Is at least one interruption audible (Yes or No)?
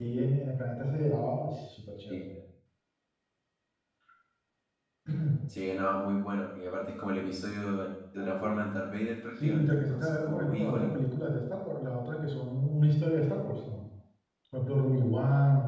Yes